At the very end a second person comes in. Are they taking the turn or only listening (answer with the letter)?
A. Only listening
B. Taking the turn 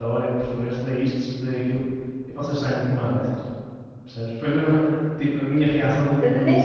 B